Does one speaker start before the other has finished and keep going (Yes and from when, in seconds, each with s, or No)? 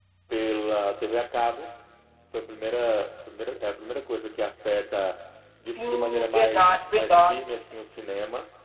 Yes, from 5.8 s